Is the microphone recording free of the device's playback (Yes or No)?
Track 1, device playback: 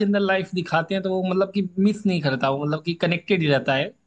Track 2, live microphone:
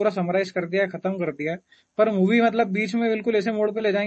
Yes